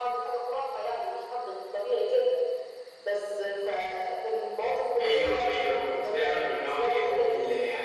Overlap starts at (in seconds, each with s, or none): 5.0 s